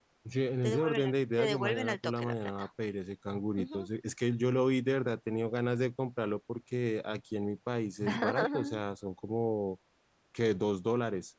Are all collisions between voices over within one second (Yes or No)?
No